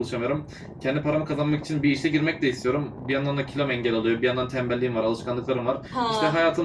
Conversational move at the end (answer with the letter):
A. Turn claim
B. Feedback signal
B